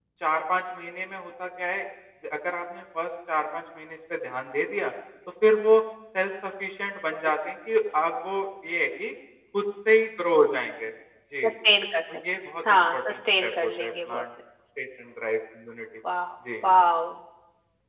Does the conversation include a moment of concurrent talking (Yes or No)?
Yes